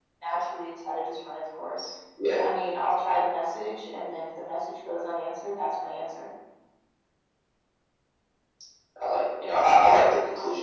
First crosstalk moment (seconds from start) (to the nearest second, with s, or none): none